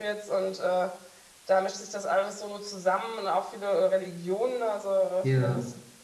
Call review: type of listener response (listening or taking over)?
listening